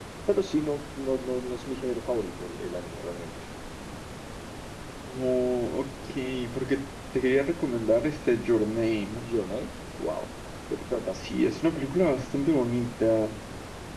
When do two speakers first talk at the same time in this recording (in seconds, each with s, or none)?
none